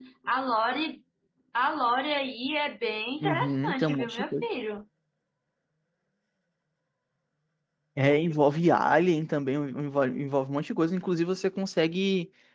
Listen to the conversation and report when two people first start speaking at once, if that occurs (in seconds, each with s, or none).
3.2 s